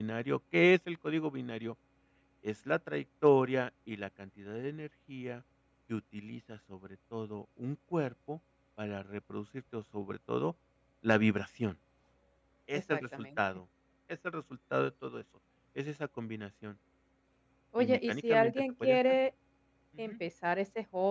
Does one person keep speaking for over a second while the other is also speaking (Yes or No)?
Yes